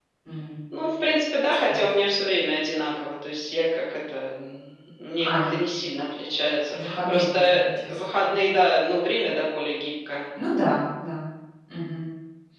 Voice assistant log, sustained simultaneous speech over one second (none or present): present